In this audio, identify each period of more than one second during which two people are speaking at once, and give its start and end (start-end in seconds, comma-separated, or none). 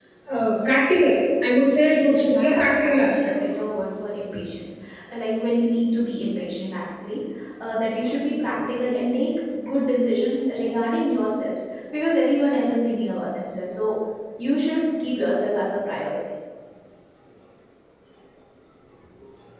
1.8-3.1